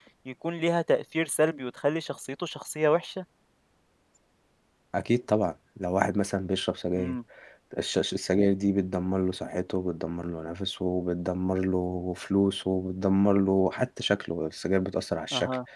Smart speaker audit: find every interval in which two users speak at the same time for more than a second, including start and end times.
none

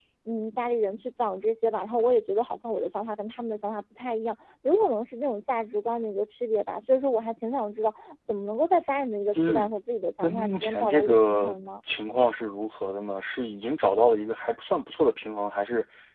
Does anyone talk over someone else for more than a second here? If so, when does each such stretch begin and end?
10.2-11.6

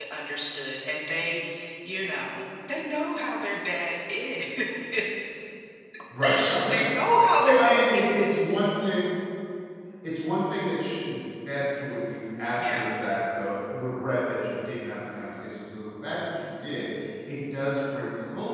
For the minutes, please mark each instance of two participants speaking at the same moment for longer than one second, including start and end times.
7.4-8.7

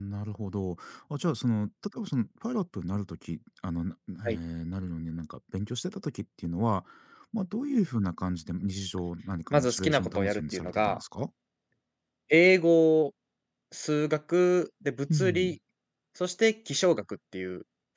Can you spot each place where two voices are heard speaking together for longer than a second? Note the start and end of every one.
9.5-11.0

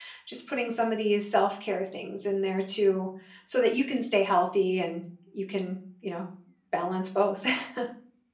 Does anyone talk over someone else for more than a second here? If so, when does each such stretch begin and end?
none

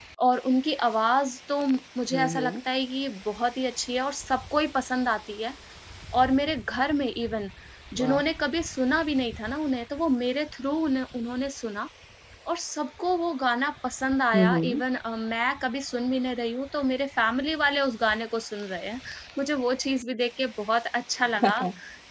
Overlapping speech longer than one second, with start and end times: none

